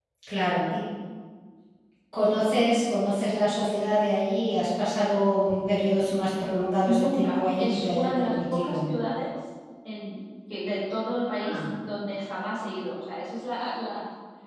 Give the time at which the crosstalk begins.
6.8 s

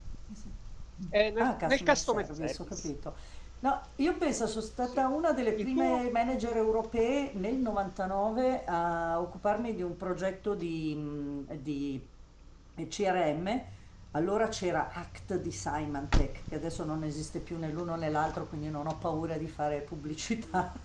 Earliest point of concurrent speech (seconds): 1.4 s

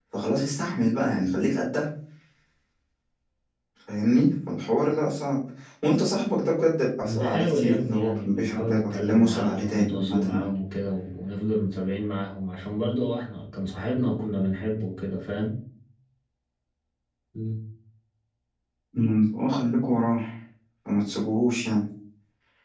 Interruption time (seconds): 7.0 s

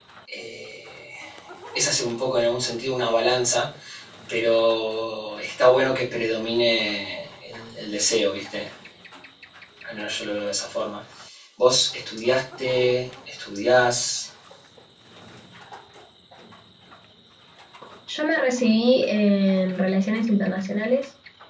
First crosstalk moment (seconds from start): none

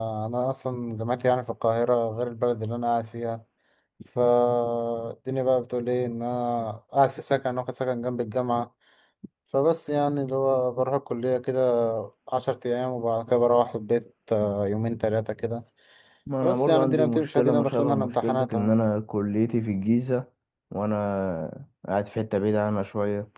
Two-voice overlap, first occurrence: 16.4 s

